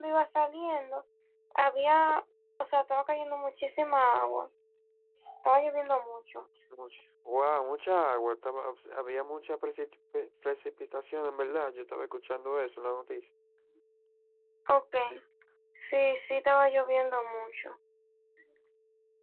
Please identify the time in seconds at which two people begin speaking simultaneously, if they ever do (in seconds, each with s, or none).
none